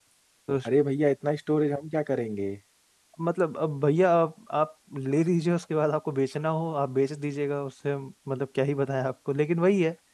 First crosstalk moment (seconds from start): none

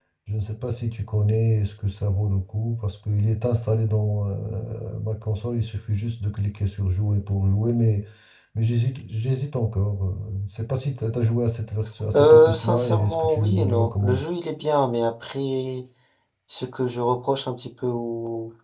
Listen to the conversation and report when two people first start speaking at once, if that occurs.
12.1 s

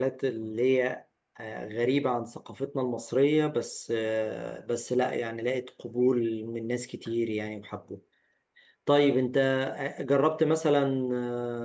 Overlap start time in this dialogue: none

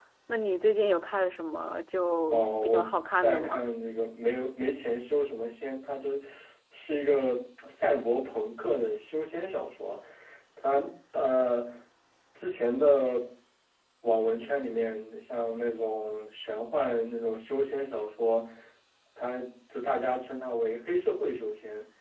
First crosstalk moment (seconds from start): 2.3 s

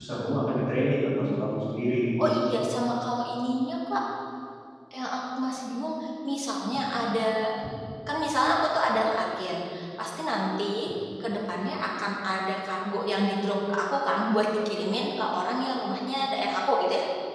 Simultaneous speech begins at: none

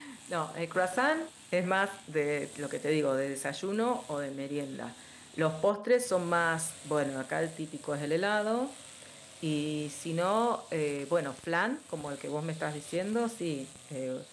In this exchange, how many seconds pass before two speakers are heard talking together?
none

